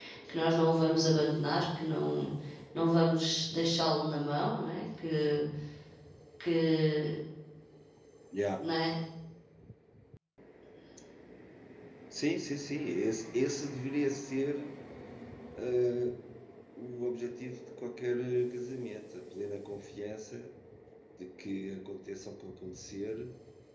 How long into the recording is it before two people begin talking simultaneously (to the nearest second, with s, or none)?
none